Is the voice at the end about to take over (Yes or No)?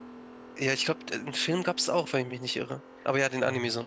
Yes